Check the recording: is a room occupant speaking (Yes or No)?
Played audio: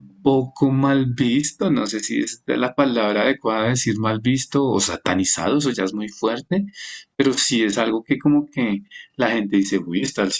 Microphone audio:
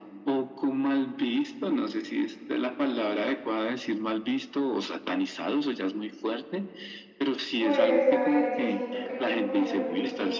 Yes